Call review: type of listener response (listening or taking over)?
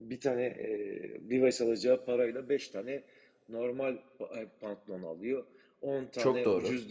listening